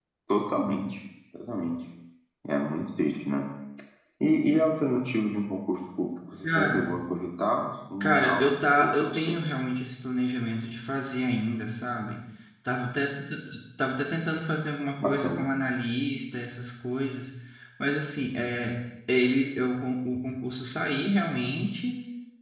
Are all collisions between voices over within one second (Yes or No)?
Yes